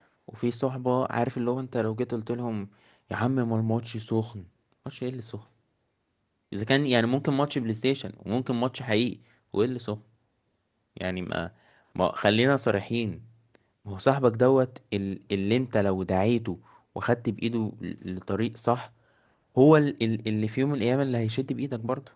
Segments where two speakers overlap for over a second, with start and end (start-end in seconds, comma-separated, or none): none